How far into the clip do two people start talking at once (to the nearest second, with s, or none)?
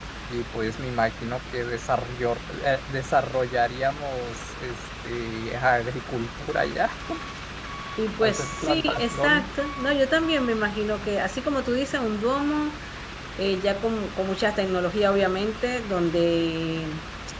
8 s